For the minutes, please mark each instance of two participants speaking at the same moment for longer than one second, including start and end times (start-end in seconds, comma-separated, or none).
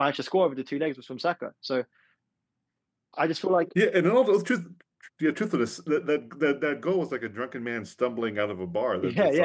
none